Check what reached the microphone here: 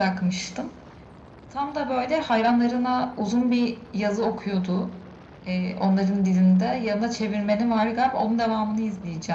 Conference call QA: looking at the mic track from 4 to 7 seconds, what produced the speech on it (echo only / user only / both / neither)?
echo only